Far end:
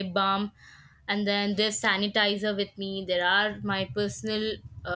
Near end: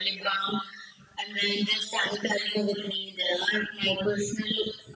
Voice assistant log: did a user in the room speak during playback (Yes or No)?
No